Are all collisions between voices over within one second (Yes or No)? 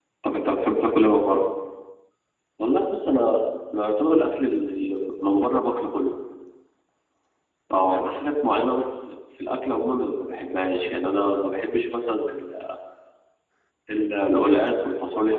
Yes